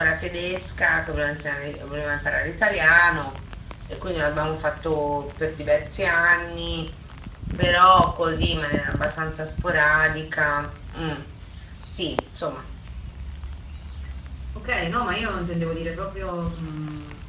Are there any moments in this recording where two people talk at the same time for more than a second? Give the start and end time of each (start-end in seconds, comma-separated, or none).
none